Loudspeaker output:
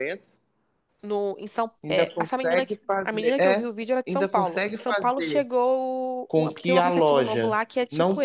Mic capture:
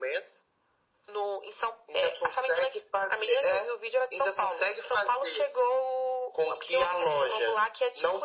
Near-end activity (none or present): none